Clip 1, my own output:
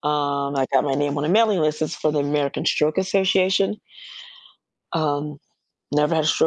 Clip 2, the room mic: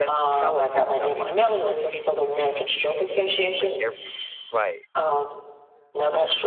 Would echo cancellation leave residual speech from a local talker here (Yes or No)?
Yes